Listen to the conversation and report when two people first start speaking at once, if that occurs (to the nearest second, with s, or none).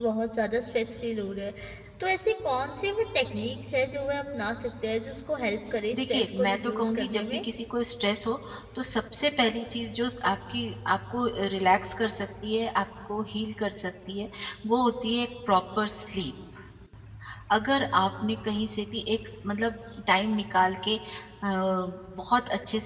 6 s